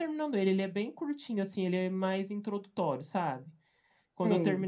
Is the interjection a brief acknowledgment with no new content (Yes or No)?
Yes